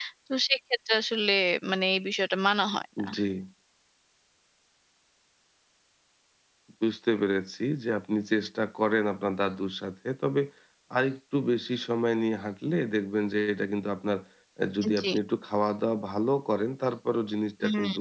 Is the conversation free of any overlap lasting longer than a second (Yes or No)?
Yes